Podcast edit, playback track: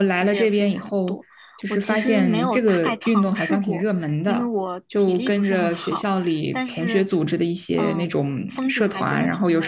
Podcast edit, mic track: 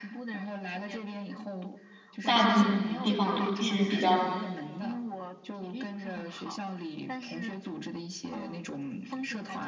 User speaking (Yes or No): Yes